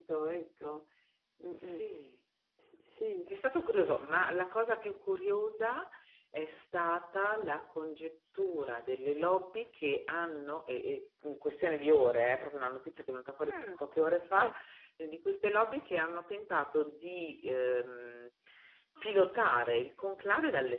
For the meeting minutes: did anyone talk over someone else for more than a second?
No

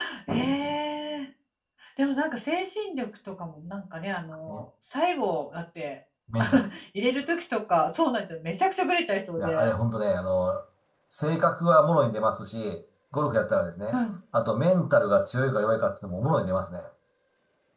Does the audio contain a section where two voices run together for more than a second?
No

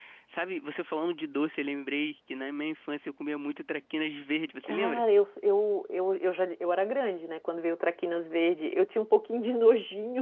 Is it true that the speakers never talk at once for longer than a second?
Yes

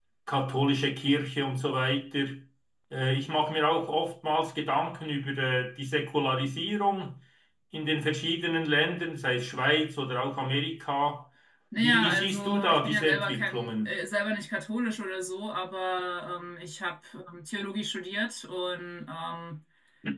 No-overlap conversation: No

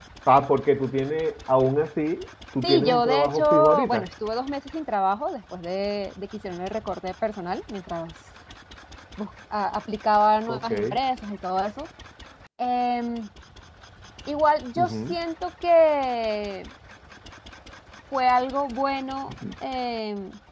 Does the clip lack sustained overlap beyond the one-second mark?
No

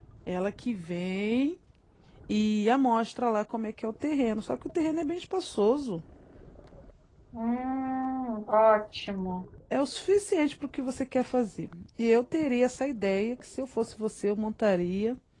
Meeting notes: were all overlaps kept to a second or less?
Yes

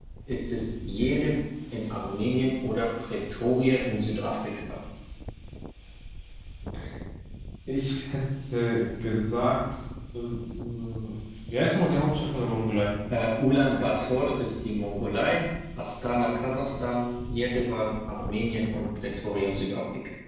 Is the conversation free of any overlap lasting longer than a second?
Yes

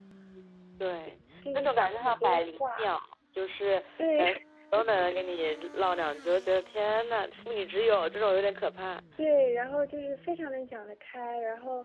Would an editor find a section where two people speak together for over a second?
Yes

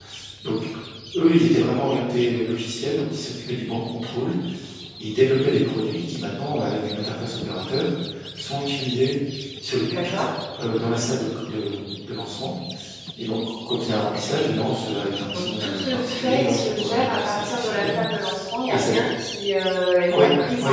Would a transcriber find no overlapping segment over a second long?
No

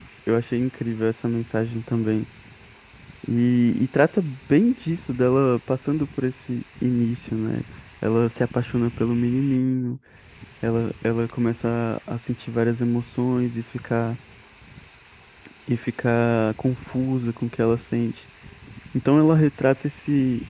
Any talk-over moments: No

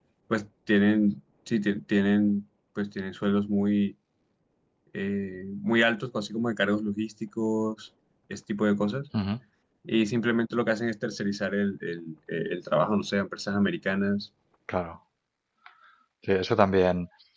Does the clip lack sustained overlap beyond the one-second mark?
Yes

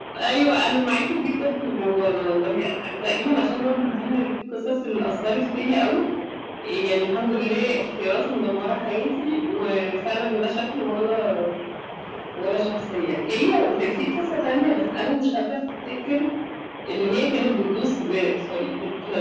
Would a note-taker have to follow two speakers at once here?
No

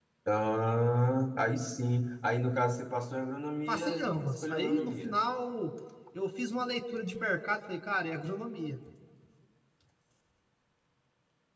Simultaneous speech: Yes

